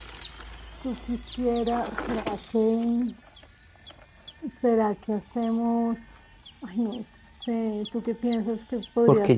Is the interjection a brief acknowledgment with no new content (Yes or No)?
No